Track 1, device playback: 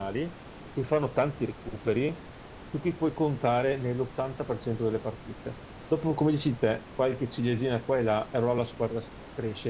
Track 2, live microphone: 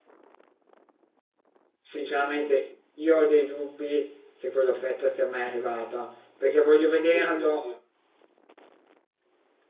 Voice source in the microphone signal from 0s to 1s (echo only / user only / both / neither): neither